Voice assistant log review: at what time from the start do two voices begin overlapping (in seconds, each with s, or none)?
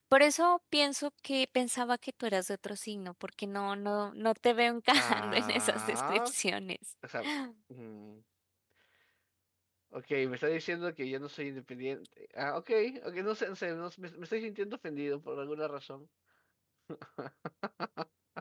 5.0 s